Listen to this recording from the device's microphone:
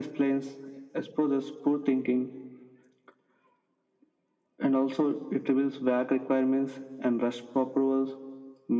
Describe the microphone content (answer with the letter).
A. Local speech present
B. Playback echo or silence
B